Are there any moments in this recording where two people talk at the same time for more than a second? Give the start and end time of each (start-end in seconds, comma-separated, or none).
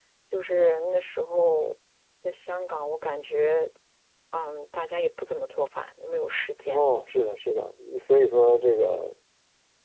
none